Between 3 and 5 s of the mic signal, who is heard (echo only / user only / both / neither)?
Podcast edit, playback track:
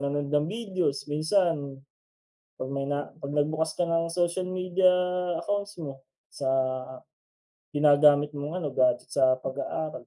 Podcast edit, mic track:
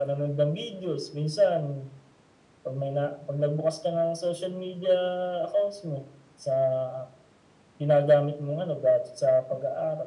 echo only